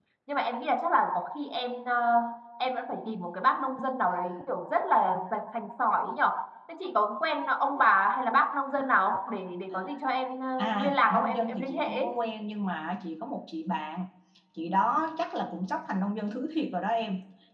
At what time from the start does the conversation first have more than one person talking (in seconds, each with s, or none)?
10.6 s